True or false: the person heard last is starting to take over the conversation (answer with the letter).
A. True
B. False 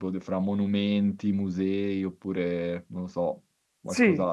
A